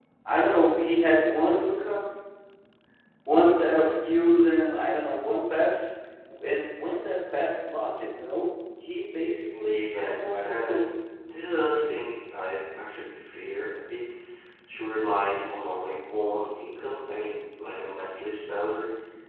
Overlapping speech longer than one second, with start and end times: 9.5-10.8

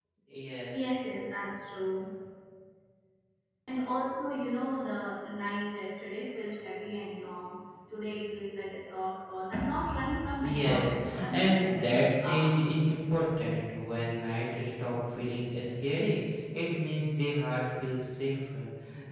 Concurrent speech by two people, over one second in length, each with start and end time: 10.4-12.5

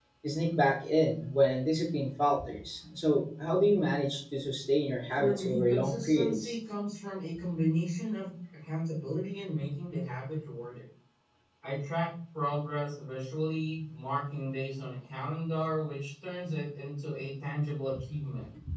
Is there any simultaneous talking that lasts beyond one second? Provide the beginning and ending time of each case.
5.2-6.5

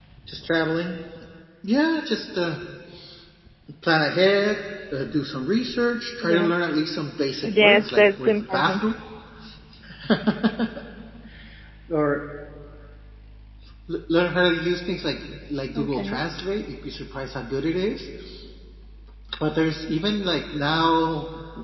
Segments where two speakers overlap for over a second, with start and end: 7.6-8.8

